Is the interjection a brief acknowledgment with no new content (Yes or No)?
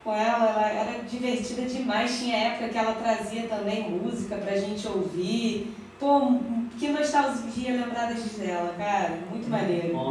No